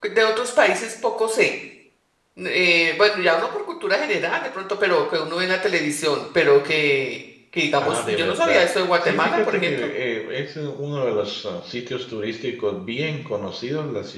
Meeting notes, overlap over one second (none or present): present